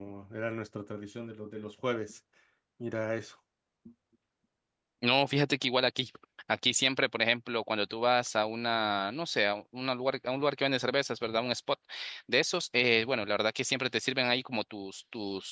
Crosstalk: none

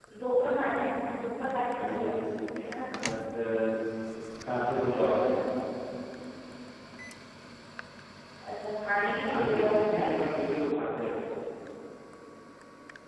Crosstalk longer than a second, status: present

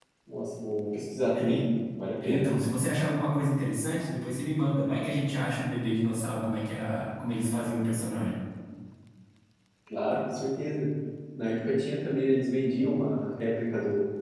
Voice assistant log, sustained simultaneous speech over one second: none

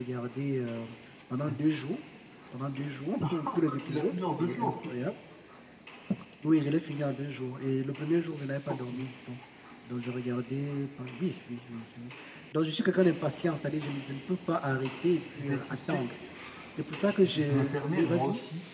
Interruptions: present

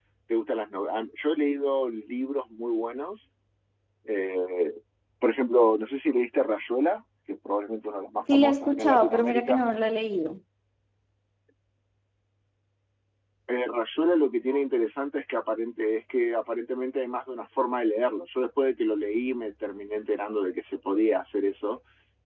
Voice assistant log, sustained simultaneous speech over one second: present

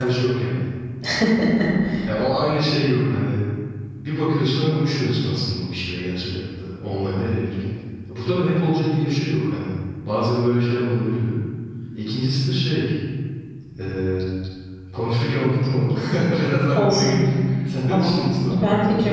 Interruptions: present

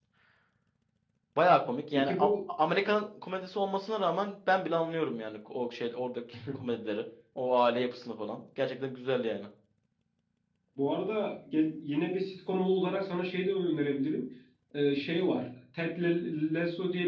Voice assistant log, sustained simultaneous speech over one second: none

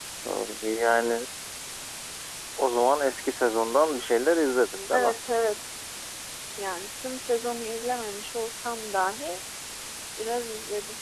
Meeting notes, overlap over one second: none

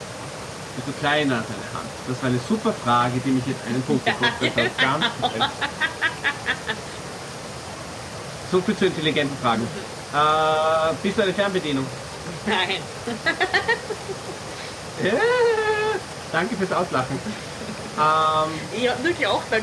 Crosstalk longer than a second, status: present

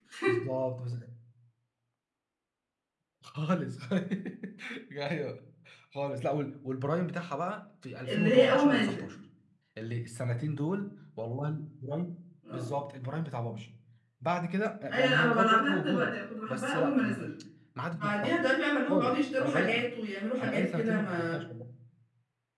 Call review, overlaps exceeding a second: present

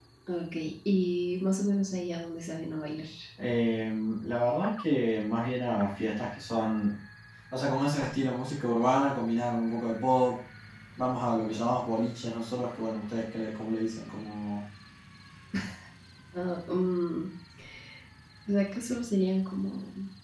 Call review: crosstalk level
none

